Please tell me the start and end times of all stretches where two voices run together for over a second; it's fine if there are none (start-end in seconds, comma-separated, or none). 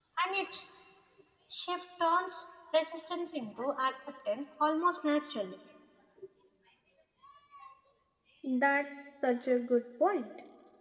none